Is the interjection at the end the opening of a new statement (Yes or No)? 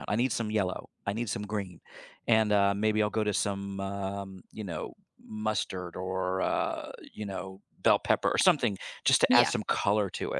No